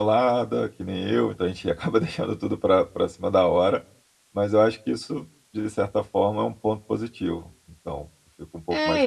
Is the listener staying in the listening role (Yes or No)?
No